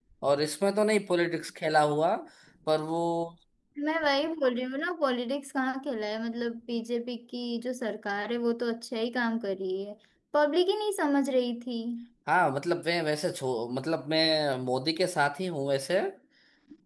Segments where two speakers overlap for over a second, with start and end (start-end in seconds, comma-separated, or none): none